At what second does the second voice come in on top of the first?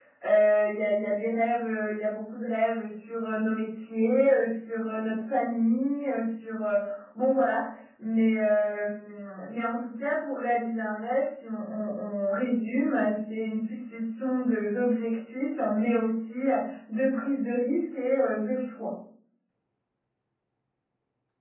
none

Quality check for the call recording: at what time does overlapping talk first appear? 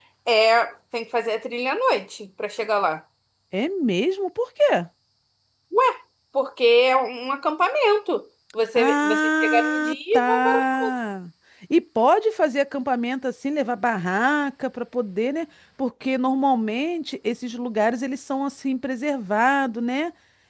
8.8 s

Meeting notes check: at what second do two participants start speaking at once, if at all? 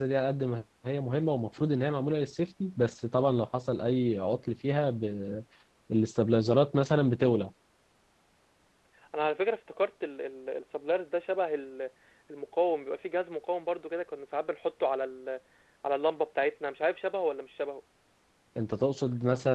none

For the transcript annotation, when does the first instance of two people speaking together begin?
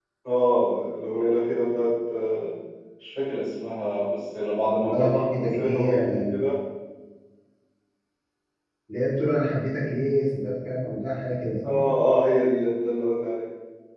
4.8 s

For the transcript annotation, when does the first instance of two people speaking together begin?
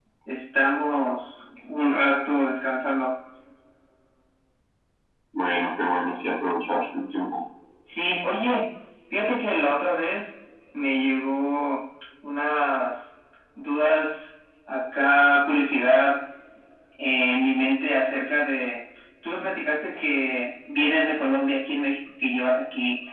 none

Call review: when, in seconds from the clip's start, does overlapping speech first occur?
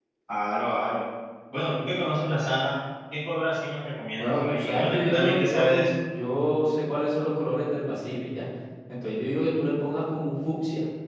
4.2 s

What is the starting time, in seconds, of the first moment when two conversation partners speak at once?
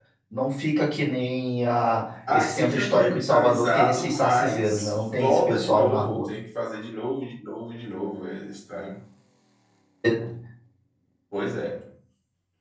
2.3 s

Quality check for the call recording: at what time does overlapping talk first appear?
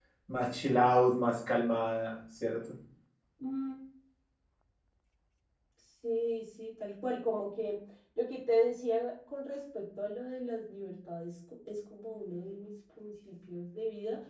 none

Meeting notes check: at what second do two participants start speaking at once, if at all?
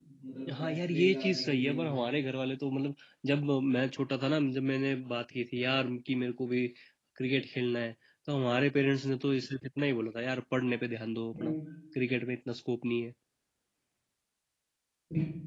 0.6 s

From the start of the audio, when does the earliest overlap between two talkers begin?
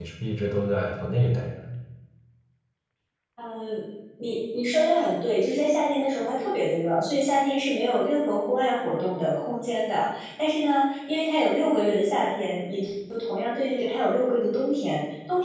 none

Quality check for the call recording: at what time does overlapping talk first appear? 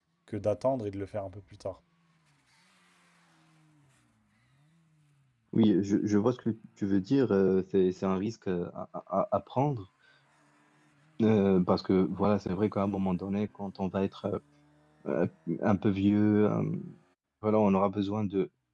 none

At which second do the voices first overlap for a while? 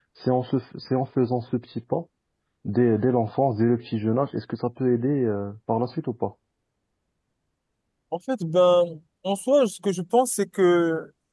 none

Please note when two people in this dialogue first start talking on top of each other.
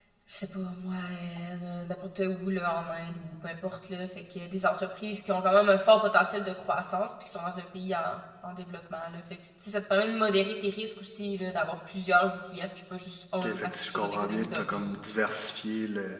13.4 s

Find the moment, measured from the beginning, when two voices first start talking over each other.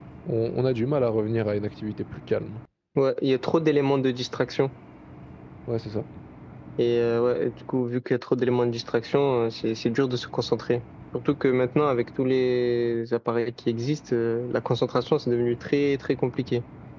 none

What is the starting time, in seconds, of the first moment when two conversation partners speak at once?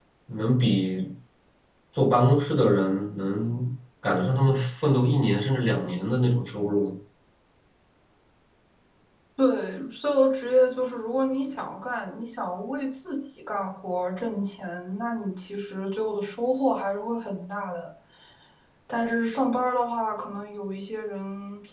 none

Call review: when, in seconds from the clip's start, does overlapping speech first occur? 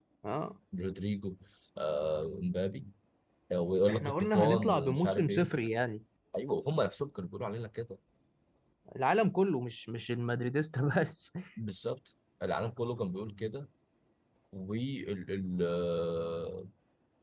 3.9 s

